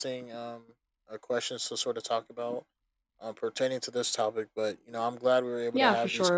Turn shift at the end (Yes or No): Yes